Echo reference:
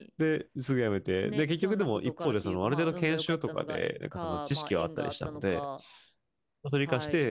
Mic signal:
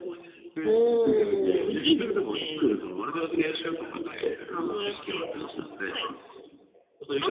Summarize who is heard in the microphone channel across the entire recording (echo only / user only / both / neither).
both